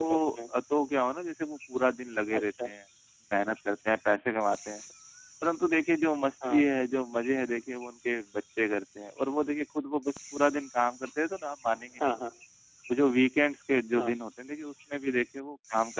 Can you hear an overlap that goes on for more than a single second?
No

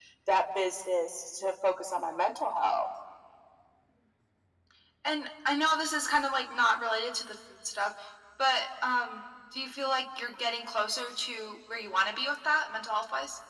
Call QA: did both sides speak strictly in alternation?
Yes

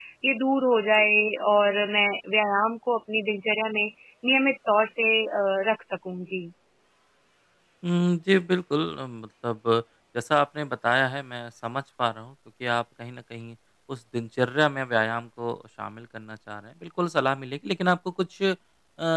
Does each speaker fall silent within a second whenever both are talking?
Yes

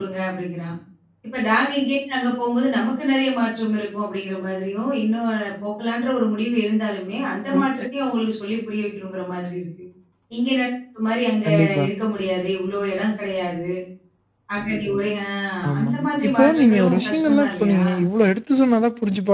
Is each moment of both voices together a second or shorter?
No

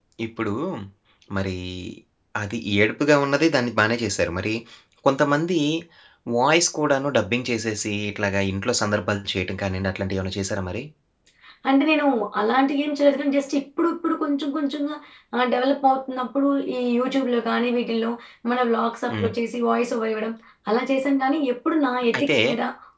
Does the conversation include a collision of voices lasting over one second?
No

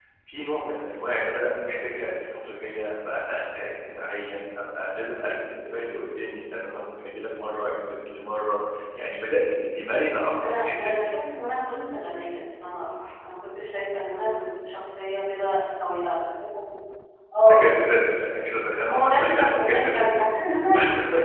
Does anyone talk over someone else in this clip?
Yes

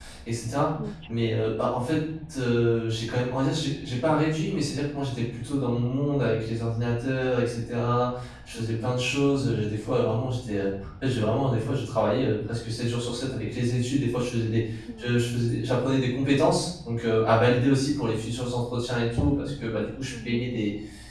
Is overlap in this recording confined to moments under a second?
Yes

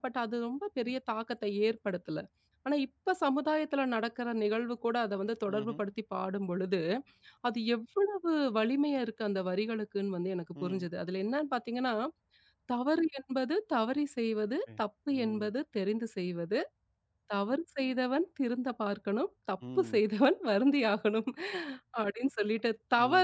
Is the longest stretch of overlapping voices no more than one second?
Yes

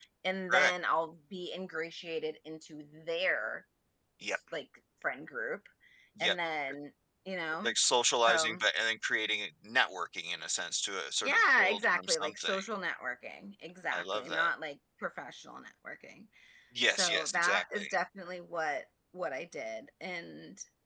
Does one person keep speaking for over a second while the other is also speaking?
Yes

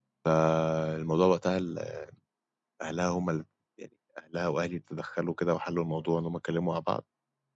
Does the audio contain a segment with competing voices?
No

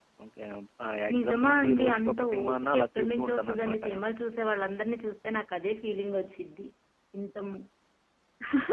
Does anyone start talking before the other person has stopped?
Yes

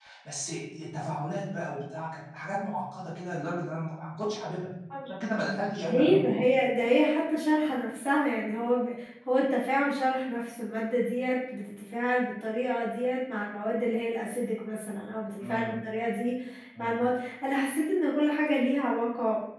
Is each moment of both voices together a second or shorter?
Yes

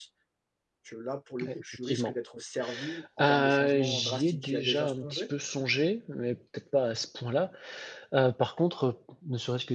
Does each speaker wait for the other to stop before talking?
No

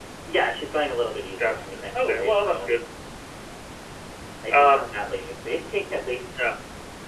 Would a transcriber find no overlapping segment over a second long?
No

